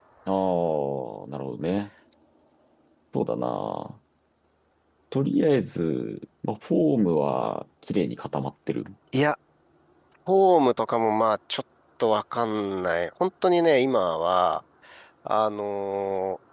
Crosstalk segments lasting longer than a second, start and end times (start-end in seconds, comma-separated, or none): none